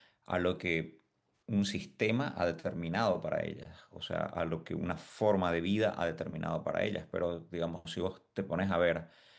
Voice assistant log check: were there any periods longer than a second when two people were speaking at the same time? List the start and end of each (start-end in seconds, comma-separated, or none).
none